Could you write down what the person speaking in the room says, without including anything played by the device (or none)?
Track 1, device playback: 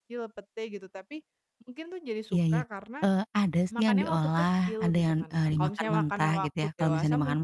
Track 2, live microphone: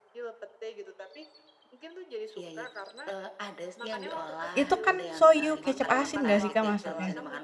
itu kan shoyu kecap asin enggak sih Kak, maksudnya?